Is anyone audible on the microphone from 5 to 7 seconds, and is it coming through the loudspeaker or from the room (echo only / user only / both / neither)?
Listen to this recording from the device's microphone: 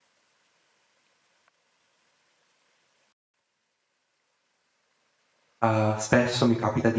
user only